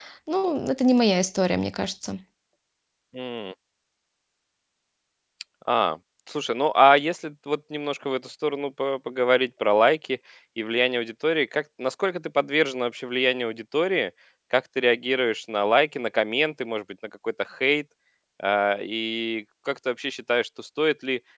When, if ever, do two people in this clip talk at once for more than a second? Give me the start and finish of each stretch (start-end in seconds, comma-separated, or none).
none